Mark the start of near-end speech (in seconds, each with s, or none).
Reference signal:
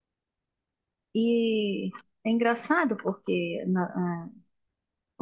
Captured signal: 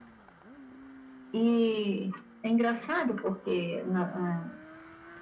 none